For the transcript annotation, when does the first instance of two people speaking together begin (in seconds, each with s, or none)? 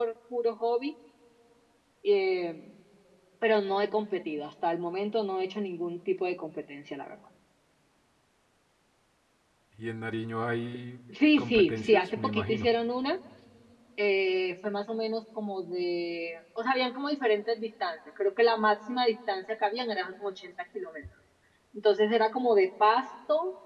11.4 s